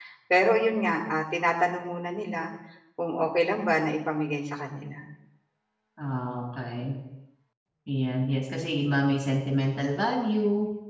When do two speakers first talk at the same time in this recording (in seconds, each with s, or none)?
none